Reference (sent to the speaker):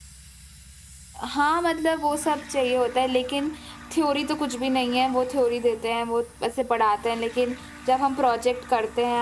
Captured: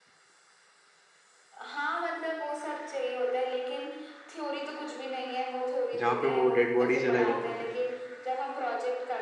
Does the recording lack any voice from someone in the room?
No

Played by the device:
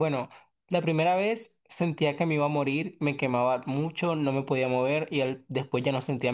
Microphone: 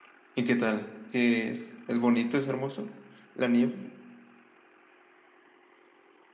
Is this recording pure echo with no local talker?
No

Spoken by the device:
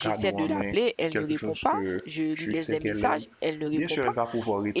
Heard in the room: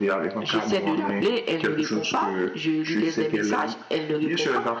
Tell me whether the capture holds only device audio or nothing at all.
Yes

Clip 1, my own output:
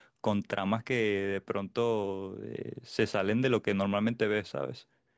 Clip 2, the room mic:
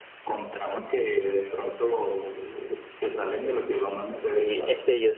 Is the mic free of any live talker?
No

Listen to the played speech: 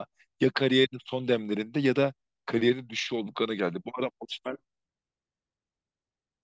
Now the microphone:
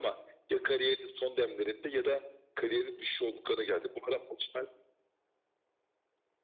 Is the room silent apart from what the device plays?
Yes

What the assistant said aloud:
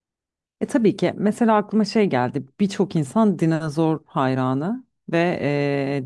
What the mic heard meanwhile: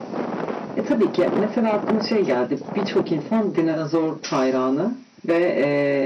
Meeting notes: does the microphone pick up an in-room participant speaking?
No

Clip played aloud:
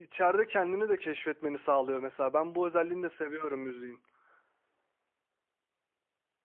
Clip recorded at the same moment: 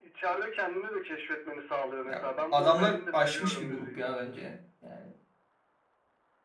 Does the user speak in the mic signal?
Yes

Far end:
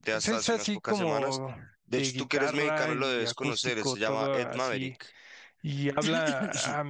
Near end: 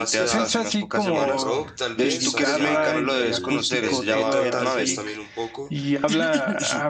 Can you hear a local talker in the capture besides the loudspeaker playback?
Yes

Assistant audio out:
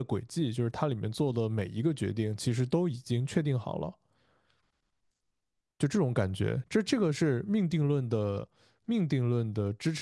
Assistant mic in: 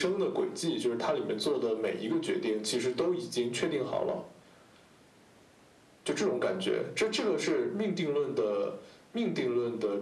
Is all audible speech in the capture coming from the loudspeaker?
Yes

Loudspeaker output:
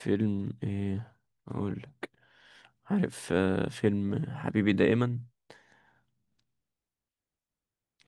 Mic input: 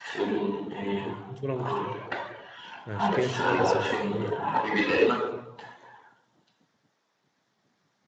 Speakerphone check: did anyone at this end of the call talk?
Yes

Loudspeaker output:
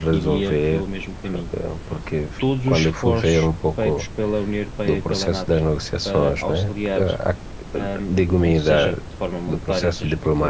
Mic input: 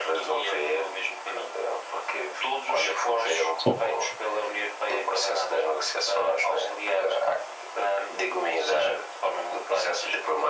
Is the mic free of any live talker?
No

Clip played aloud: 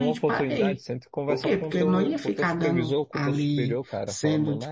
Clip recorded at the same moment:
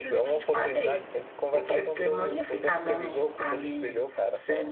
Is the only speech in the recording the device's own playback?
Yes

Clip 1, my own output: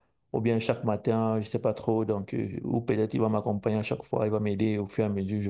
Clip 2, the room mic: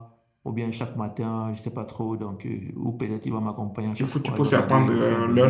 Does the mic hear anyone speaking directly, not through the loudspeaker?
Yes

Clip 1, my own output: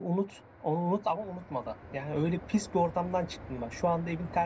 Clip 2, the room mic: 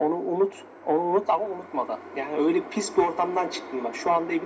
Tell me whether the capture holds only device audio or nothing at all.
Yes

